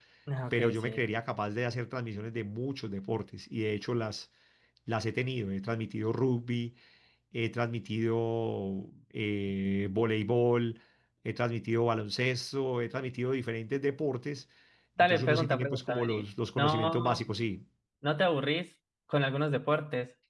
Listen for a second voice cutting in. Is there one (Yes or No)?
Yes